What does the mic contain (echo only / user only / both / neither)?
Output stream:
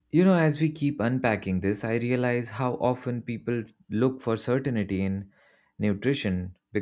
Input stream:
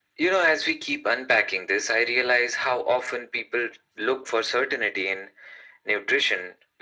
echo only